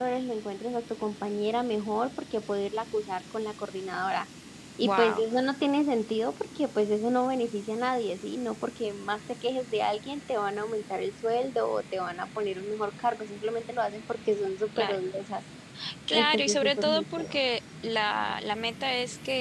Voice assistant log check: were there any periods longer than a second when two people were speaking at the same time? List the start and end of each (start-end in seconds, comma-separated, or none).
16.1-17.4